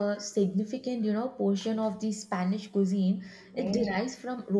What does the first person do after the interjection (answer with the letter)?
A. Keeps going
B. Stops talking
A